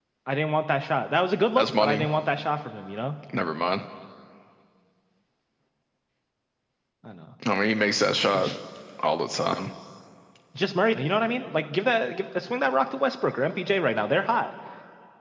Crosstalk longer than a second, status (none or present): none